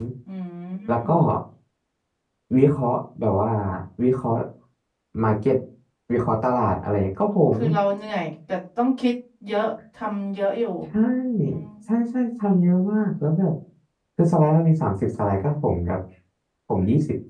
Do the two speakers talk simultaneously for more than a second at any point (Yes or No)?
No